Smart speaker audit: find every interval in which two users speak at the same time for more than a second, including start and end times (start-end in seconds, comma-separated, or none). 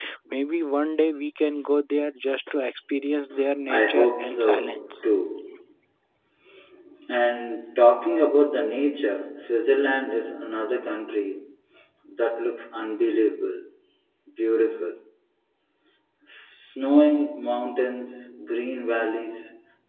3.6-4.9